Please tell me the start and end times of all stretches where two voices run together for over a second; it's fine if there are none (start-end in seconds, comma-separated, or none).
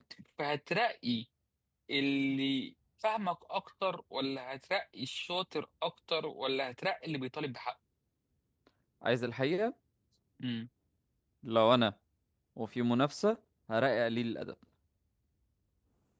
none